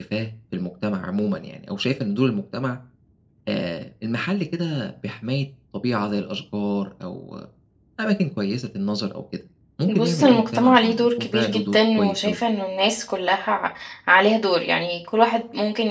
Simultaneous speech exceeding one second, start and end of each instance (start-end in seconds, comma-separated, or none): 9.9-12.4